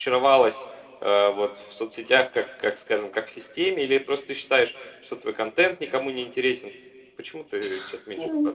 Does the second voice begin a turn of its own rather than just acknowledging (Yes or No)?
Yes